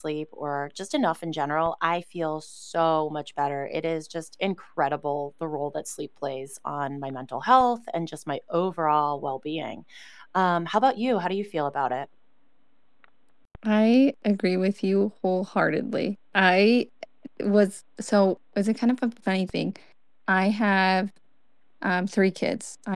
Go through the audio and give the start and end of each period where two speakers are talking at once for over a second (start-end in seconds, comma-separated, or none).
none